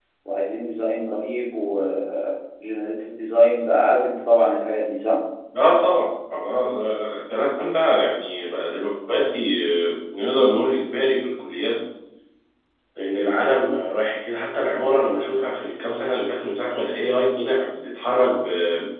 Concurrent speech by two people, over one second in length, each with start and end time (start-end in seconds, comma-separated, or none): none